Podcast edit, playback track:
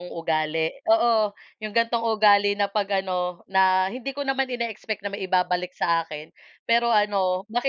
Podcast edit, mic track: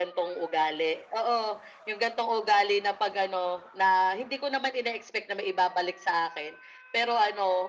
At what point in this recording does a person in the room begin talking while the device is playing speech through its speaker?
none

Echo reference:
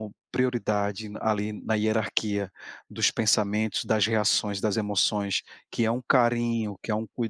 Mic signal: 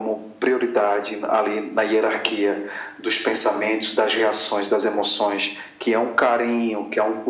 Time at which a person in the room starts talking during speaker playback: none

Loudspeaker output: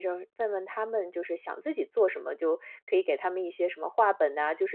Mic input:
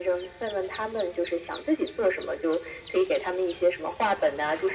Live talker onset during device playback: none

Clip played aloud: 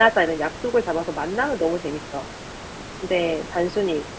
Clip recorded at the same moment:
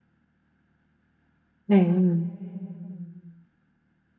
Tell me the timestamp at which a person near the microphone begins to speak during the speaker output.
1.6 s

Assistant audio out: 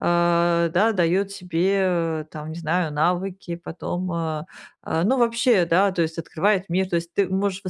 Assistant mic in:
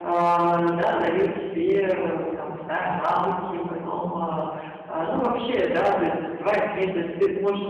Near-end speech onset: none

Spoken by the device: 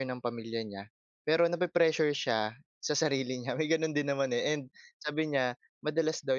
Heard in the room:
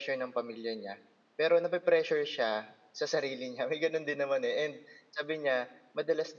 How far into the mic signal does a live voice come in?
none

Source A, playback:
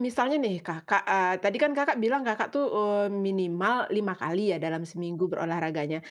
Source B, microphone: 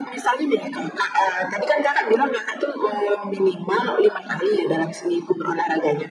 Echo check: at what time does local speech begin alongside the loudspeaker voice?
none

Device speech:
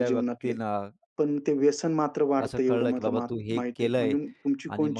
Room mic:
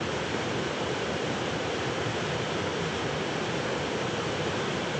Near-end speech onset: none

